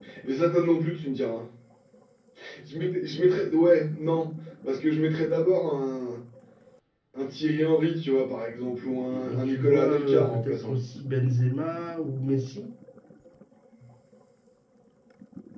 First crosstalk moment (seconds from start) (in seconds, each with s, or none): 9.1 s